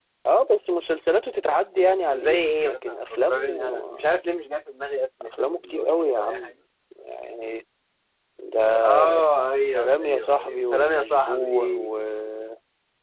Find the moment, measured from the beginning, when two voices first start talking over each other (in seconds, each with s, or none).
2.1 s